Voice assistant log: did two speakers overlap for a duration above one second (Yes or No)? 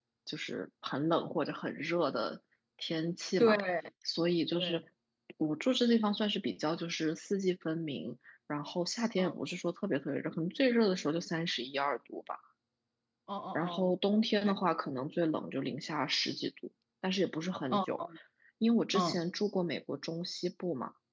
No